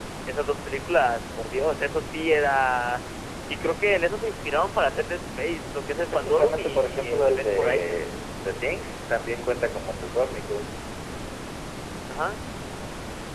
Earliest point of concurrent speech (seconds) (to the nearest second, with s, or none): 6 s